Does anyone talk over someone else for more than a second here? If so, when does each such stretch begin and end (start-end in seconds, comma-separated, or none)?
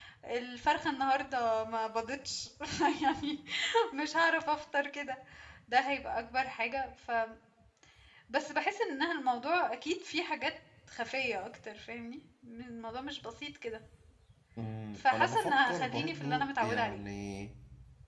15.0-17.0